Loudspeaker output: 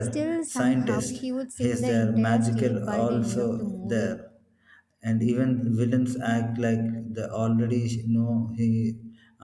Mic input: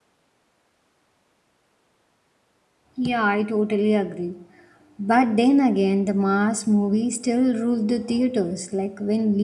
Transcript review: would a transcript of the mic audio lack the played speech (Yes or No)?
Yes